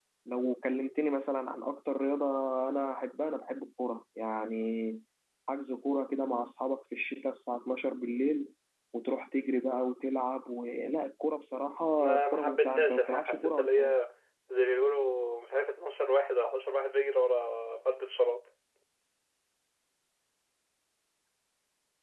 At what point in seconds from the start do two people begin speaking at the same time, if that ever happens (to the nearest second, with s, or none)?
12 s